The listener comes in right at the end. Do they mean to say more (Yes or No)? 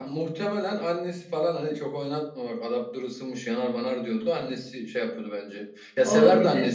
No